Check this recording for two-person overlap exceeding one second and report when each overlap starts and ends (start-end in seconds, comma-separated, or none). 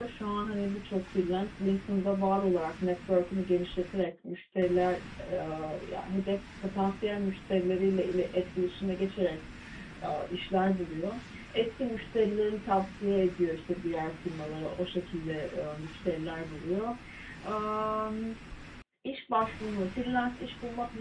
none